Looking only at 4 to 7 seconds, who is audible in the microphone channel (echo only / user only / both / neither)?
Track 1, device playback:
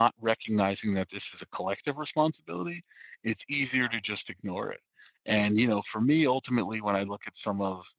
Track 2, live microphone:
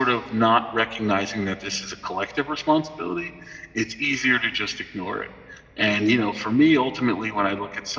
echo only